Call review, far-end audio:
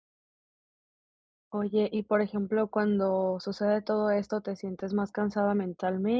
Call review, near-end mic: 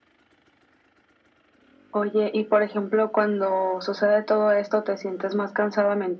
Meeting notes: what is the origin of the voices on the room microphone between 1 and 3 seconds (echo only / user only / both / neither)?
echo only